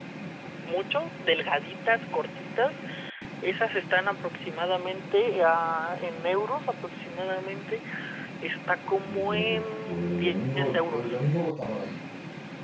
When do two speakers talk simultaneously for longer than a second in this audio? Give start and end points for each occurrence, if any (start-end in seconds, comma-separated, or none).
9.1-11.2